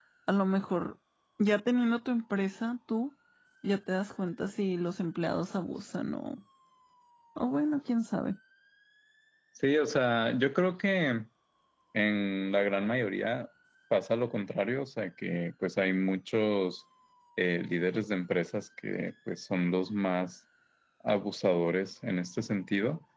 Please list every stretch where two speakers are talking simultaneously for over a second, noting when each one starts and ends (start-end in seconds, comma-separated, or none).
none